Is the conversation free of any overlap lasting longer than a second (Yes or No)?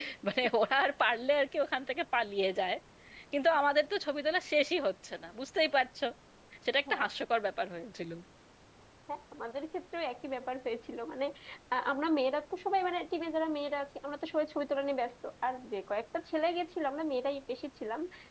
Yes